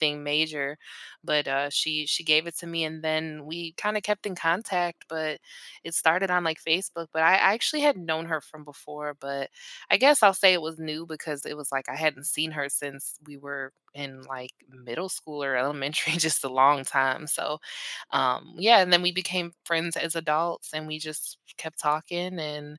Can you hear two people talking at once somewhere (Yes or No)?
No